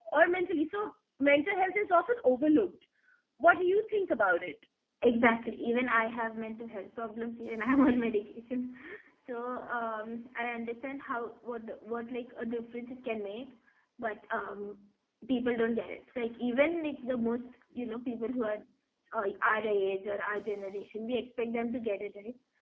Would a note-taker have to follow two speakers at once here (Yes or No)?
No